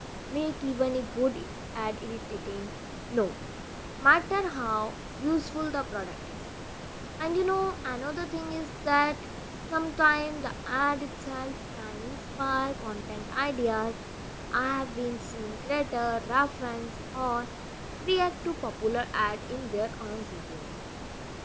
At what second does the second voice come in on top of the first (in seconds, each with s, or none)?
none